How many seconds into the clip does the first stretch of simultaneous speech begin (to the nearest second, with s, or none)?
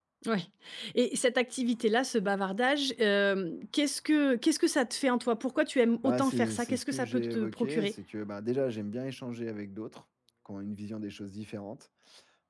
6 s